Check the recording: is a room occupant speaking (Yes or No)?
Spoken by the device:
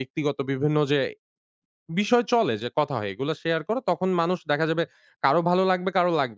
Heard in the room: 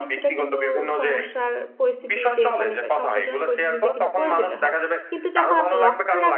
Yes